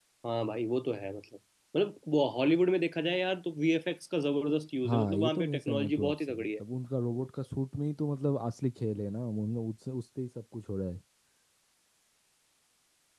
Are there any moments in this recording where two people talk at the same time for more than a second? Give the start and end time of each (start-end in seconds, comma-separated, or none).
4.9-6.5